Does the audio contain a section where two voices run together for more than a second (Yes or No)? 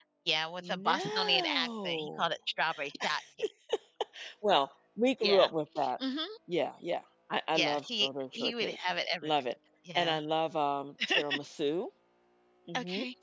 Yes